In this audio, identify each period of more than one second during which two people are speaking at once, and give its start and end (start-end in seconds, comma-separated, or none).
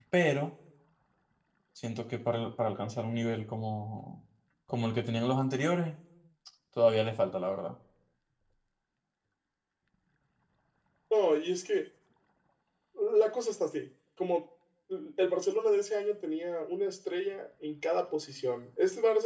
none